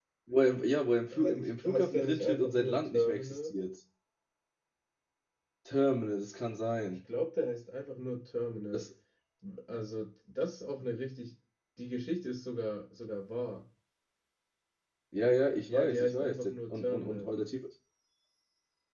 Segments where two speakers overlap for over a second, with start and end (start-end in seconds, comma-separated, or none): 1.1-3.5, 15.7-17.3